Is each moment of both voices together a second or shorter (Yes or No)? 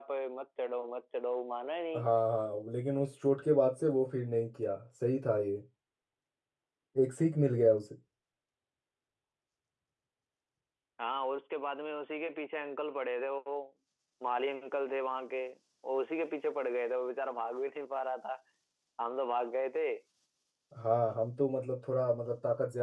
Yes